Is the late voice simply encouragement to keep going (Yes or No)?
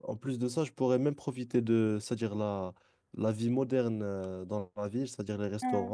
Yes